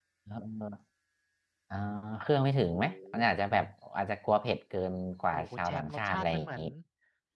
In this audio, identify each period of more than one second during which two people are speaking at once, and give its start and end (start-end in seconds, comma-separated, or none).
5.3-6.6